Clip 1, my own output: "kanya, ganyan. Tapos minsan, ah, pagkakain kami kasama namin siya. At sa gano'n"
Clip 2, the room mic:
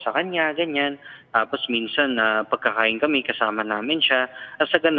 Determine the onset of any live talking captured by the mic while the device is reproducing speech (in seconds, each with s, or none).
none